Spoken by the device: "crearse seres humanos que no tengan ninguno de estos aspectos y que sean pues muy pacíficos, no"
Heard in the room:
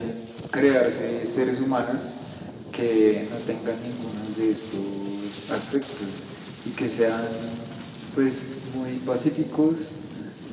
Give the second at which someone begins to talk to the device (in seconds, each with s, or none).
none